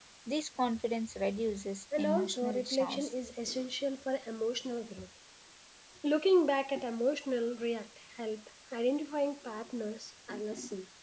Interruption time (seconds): 1.9 s

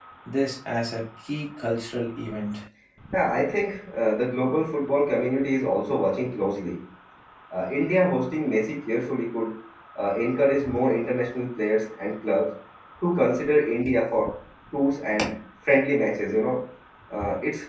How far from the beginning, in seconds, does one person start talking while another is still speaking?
none

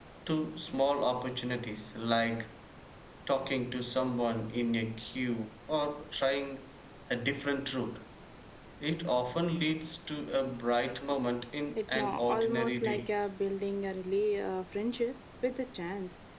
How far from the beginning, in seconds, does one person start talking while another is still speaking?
11.8 s

